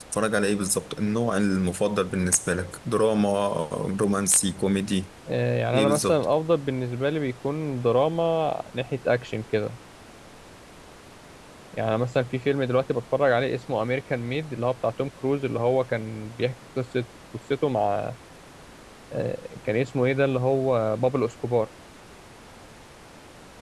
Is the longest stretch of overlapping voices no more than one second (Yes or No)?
Yes